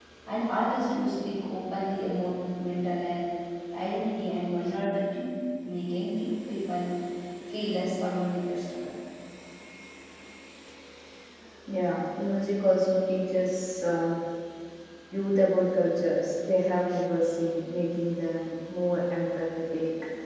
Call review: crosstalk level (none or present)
none